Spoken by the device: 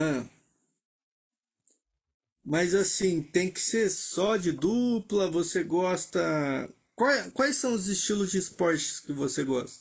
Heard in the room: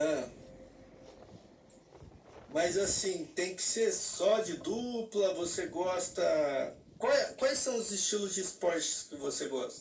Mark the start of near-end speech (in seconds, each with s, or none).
none